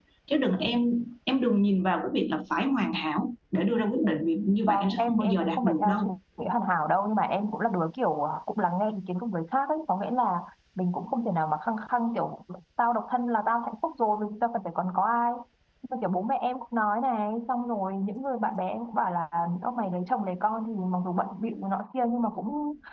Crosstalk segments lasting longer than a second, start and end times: 4.7-6.1

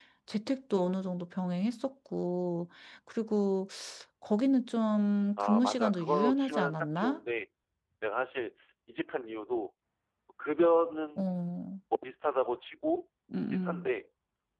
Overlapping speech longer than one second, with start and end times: 5.4-7.2

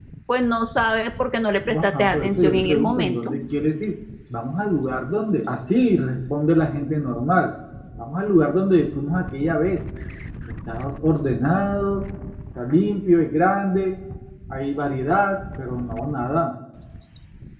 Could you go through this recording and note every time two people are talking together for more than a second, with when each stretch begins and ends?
1.8-3.3

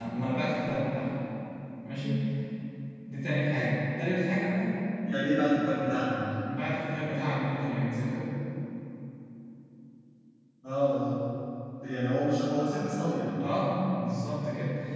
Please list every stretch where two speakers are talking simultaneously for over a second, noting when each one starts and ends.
none

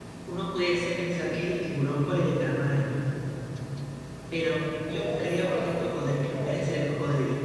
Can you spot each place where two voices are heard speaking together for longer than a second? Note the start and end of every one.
4.8-6.8

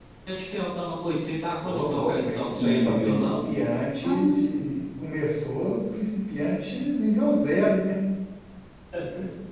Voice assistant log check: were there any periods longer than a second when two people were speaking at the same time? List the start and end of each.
1.6-3.5

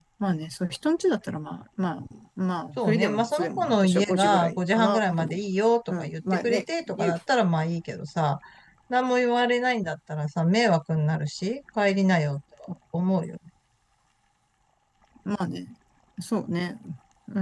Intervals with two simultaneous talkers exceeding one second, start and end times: 2.8-5.4, 5.9-7.1

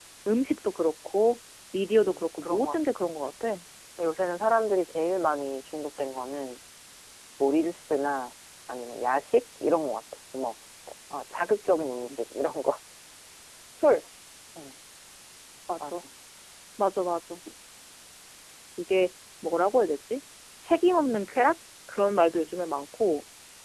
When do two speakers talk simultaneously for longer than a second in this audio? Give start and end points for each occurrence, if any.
2.0-3.3

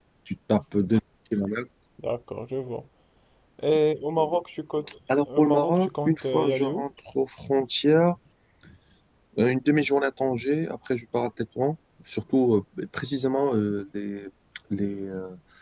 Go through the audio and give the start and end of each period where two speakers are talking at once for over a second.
5.4-6.8

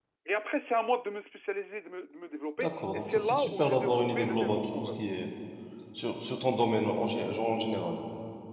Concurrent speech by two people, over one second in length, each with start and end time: 2.6-5.0

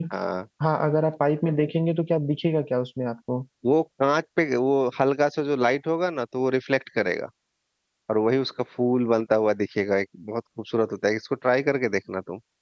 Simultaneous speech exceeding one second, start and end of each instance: none

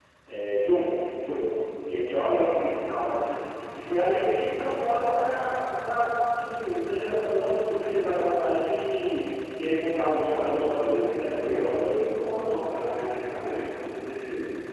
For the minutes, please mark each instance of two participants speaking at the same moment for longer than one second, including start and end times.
10.2-12.1

